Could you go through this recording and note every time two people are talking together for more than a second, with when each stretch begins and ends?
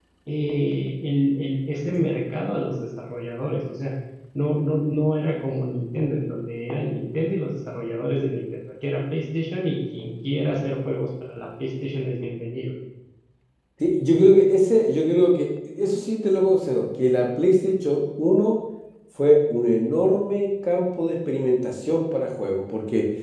none

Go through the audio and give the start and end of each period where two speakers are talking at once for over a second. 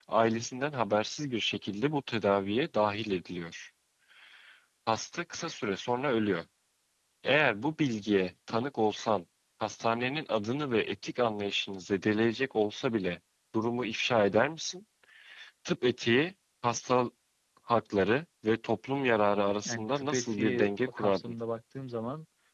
19.6-21.3

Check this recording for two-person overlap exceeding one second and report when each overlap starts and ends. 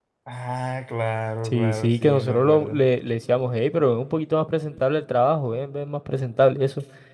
1.4-2.8

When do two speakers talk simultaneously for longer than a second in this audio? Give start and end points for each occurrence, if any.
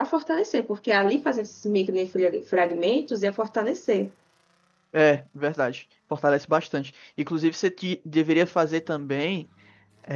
none

